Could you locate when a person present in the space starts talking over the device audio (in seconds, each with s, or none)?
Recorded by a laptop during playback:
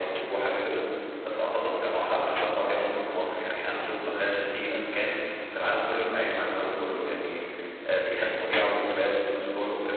none